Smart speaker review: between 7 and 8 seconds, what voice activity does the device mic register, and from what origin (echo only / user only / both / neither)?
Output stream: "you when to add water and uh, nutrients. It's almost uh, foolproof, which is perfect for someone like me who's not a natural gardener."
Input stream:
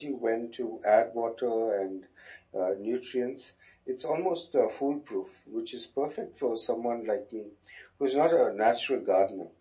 echo only